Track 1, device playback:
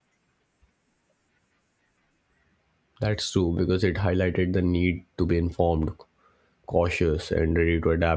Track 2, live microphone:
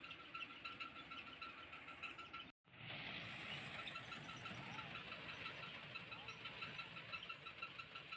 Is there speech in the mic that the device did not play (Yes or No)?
No